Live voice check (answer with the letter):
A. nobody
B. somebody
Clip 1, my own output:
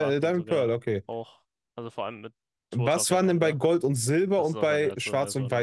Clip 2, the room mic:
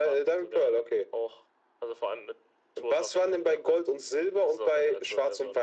A